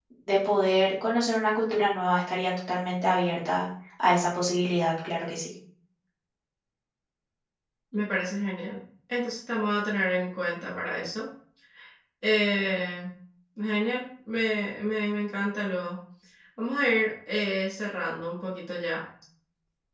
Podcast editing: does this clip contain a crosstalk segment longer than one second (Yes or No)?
No